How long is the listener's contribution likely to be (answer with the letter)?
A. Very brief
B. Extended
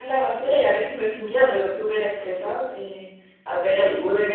A